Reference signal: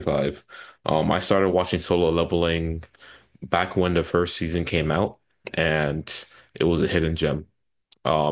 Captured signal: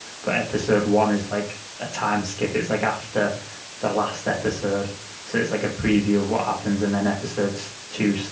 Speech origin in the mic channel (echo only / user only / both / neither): user only